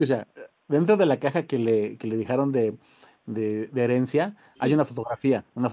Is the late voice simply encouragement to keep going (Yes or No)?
Yes